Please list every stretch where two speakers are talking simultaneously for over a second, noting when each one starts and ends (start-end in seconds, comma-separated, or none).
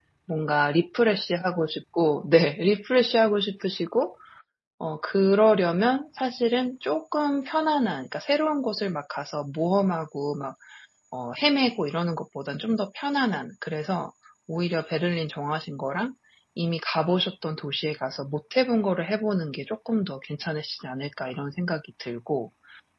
none